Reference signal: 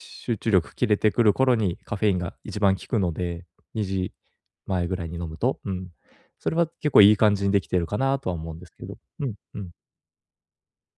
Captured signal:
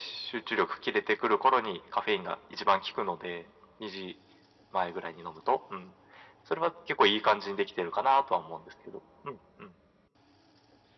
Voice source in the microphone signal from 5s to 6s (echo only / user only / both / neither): echo only